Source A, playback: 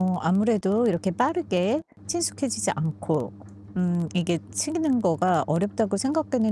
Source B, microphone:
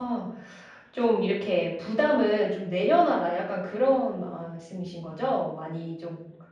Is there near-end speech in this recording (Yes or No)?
Yes